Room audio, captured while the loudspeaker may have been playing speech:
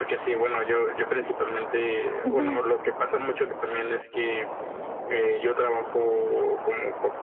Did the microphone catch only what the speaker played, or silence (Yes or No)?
No